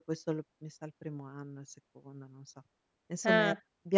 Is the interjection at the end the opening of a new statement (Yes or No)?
No